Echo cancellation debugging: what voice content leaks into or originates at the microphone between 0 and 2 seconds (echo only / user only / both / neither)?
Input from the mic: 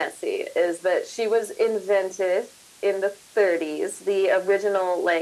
echo only